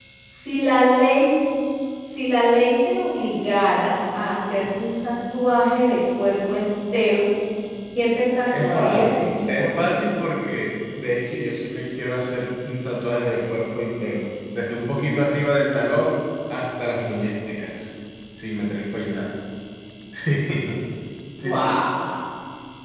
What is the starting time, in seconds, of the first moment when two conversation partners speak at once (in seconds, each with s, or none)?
8.6 s